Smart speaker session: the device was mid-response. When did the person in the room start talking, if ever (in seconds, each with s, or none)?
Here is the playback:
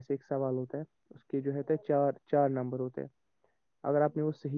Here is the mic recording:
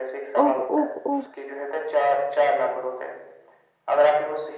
0.4 s